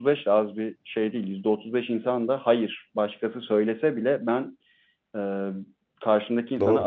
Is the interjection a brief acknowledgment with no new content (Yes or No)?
Yes